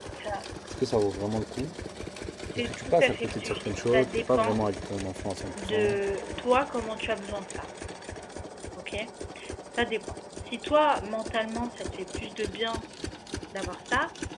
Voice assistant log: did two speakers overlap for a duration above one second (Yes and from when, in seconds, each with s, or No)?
Yes, from 2.5 s